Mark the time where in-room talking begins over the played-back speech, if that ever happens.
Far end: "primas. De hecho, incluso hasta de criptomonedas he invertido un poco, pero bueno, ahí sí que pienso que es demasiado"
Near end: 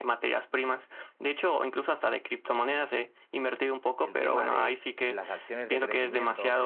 4.0 s

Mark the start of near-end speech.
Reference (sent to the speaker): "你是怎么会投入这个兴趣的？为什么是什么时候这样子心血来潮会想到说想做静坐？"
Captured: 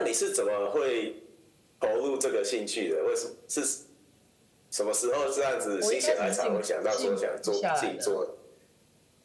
5.8 s

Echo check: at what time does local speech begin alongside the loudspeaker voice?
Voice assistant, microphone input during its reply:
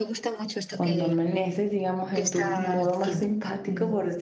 0.7 s

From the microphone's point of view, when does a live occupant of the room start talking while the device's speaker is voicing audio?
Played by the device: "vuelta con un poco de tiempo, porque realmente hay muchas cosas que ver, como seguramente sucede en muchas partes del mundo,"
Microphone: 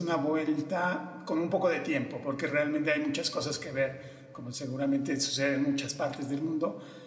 none

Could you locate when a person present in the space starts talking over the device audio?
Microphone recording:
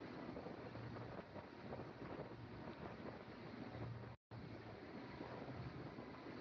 none

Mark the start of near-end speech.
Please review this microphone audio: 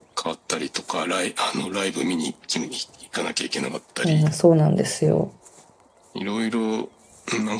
4.0 s

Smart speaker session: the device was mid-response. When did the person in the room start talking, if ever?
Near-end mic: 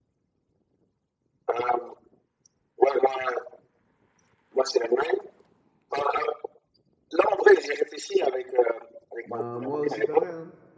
9.2 s

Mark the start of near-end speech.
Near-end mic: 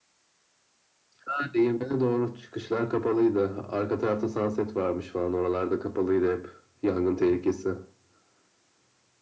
none

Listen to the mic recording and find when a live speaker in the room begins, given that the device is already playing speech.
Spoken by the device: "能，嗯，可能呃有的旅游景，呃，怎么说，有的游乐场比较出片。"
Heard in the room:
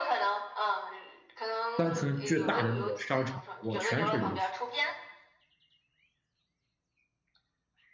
1.8 s

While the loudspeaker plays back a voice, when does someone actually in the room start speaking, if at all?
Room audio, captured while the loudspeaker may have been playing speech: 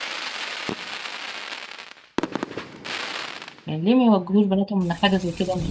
3.6 s

